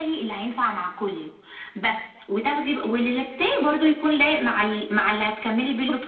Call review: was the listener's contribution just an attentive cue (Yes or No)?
No